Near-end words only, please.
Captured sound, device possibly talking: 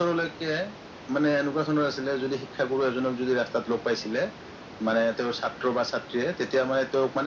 none

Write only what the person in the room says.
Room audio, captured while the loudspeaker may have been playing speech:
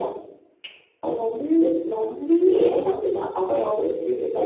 அத பத்தி திங் பண்ணா

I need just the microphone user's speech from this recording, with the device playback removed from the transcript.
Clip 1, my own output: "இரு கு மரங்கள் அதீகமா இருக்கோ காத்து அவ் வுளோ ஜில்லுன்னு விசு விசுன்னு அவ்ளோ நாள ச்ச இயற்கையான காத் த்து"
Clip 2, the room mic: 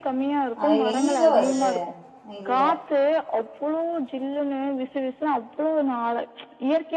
அது எங்கிங்க வருது இல்ல

